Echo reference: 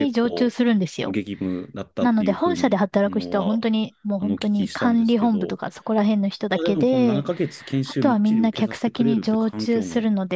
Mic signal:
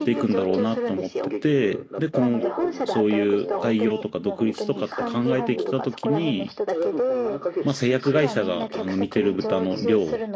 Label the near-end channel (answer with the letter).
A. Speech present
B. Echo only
A